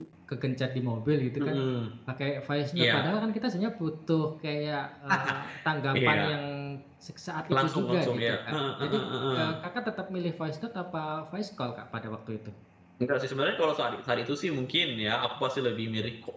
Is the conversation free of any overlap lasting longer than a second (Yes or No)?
No